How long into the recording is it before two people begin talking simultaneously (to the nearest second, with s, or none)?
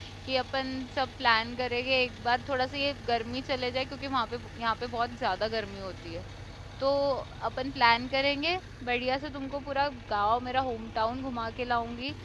none